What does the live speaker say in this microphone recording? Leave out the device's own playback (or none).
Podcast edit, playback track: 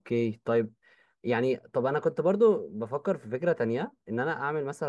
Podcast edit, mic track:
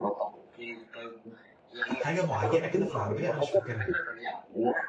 ح- حاجه معينه كده في العربيه انا مش فاكرها